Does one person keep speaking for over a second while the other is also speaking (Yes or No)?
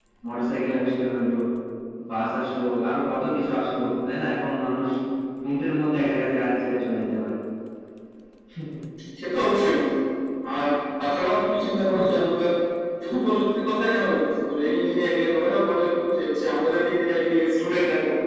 No